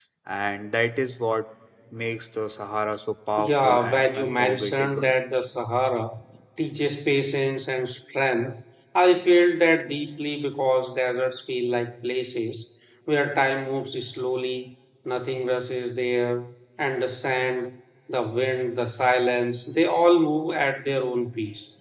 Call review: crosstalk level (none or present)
present